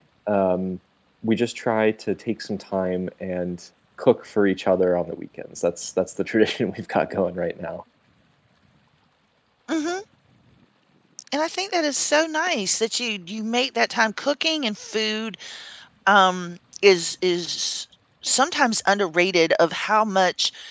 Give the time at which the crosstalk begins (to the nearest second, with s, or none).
none